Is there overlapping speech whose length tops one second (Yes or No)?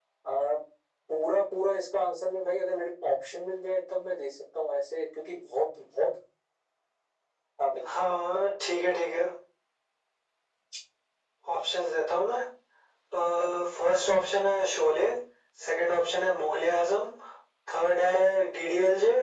No